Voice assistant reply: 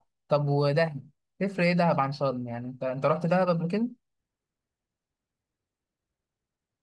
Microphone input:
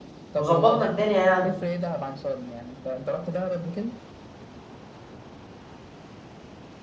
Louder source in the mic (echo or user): user